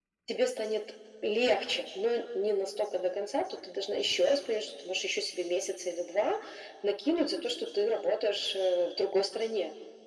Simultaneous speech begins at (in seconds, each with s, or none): none